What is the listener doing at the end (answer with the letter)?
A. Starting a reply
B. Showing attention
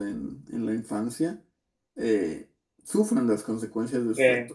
B